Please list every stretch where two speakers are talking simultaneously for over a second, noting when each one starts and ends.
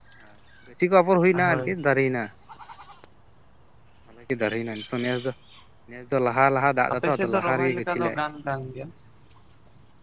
6.9-8.1

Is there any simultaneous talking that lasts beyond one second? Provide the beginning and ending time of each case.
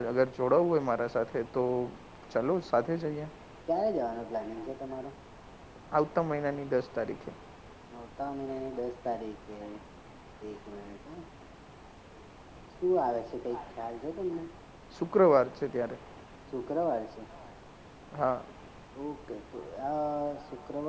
none

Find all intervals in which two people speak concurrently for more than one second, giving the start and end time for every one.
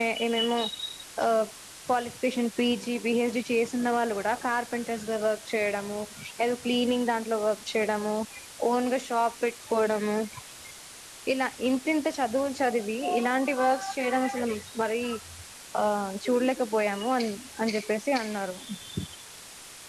none

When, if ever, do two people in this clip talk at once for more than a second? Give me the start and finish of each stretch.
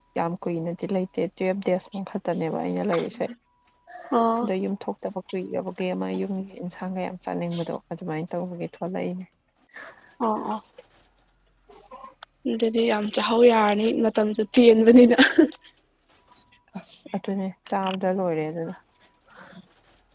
none

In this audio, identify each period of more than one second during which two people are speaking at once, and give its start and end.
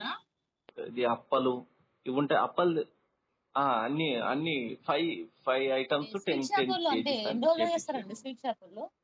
6.3-8.0

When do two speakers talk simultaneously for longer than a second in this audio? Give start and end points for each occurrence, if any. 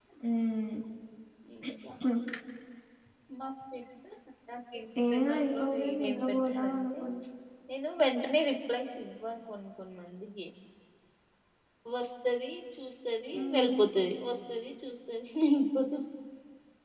5.1-7.0

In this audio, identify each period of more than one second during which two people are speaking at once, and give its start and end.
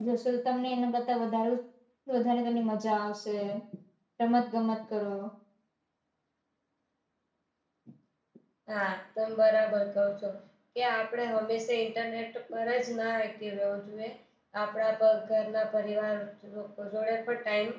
none

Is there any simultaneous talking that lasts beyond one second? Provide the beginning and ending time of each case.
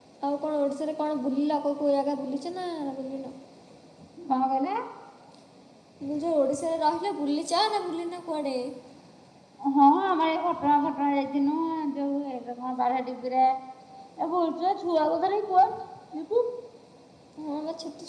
none

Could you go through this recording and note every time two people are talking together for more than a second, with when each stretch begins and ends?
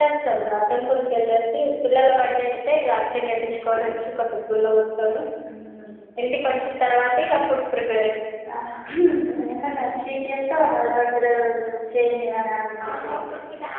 none

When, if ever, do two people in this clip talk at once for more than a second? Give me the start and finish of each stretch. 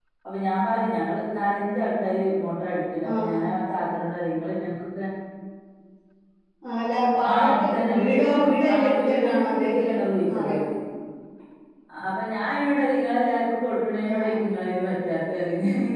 7.3-9.9

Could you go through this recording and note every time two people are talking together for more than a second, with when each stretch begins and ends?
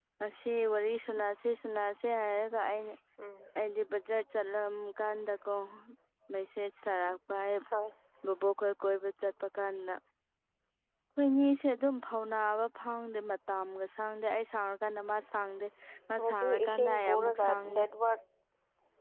16.2-17.8

